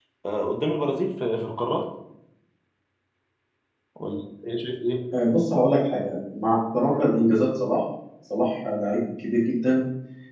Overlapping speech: No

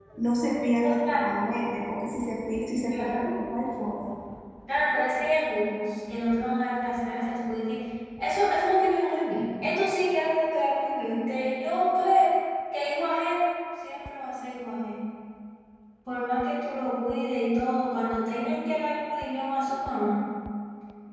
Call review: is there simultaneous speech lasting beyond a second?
No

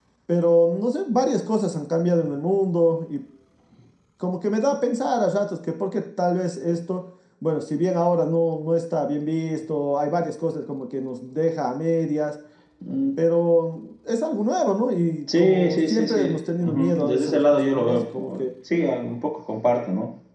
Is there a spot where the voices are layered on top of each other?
Yes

